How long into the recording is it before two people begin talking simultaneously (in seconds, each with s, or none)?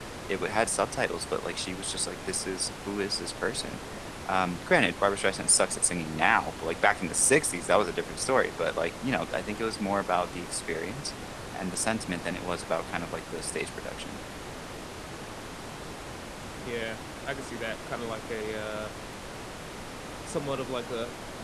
none